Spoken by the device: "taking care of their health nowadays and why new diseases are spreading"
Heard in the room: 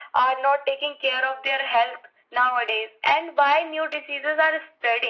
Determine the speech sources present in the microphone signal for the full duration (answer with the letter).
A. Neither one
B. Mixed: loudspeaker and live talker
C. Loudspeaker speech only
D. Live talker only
C